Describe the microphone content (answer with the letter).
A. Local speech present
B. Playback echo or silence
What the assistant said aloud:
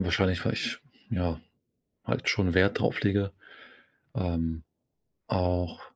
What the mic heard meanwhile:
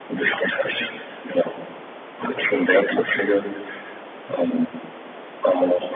B